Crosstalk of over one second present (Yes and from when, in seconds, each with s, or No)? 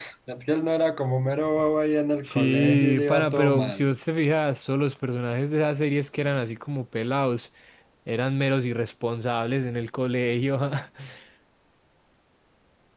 Yes, from 2.2 s